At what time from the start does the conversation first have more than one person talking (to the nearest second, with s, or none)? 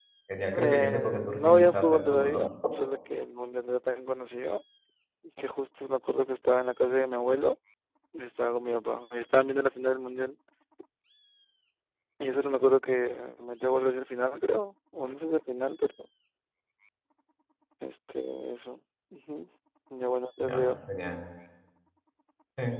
1 s